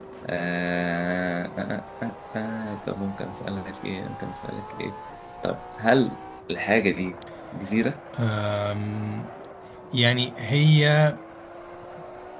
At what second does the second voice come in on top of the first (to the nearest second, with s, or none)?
none